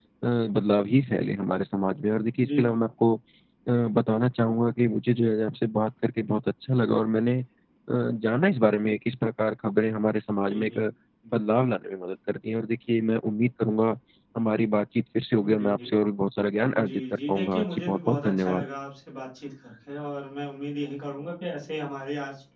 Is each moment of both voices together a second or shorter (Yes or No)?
No